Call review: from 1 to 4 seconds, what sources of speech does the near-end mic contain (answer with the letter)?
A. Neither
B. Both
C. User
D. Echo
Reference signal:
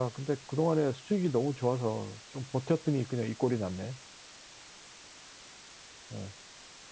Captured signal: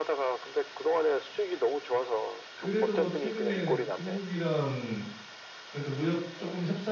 B